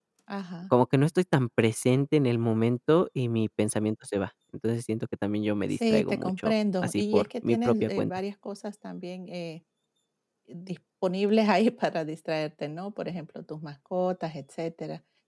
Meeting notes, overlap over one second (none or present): present